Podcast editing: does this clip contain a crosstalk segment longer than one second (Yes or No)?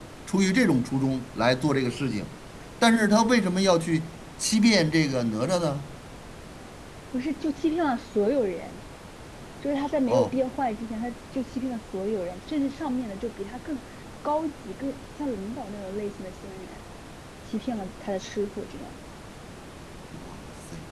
No